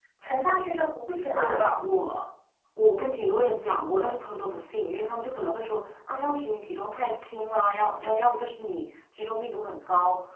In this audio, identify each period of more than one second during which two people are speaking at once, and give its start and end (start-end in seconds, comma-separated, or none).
none